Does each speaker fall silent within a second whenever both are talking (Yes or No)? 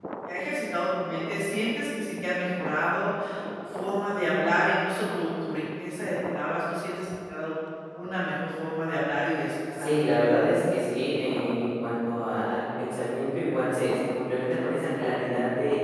Yes